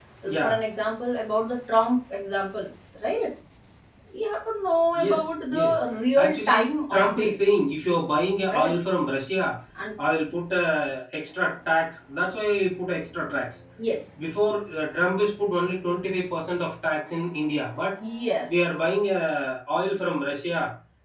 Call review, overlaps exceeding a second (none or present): present